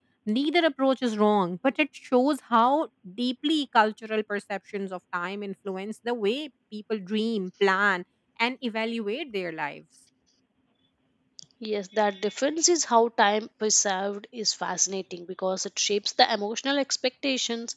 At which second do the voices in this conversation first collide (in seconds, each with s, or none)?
none